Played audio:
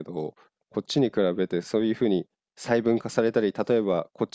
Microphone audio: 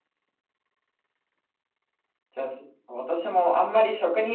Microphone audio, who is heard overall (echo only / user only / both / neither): user only